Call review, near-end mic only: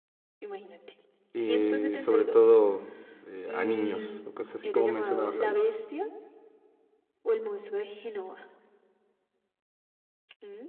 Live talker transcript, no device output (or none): y sobre todo eh, a niños o cosas así como mencionabas ahorita.